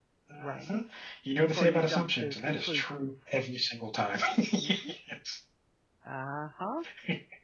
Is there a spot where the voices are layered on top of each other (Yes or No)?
Yes